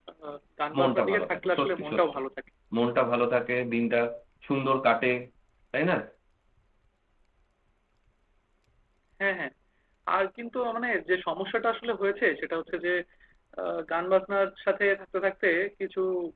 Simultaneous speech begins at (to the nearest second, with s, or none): 1 s